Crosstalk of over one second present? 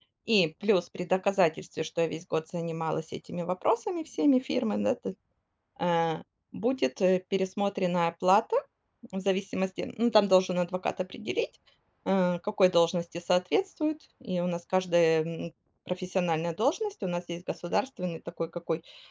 No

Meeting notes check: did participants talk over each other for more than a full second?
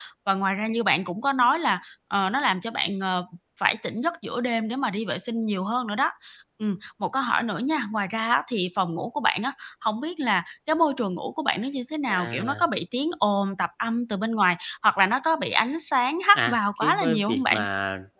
Yes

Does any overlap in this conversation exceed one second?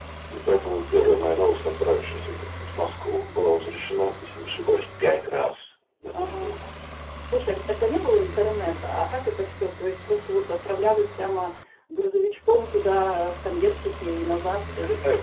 No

